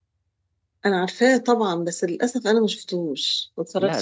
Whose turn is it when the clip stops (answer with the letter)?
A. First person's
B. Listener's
B